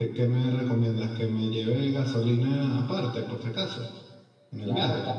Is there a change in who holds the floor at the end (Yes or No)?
Yes